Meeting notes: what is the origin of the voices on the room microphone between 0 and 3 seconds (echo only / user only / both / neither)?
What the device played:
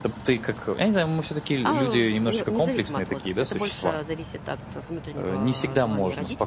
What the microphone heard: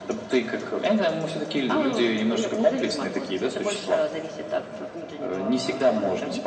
echo only